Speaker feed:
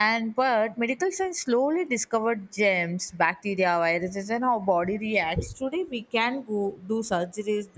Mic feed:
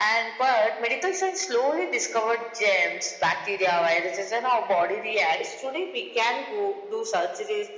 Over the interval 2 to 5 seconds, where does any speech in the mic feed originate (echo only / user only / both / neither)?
echo only